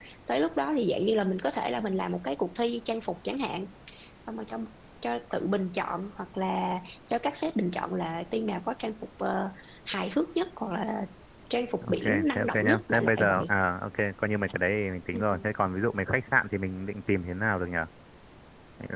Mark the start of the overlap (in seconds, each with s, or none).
11.8 s